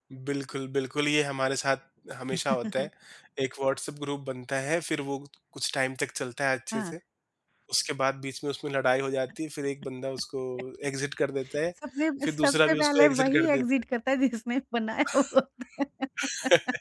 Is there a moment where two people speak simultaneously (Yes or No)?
Yes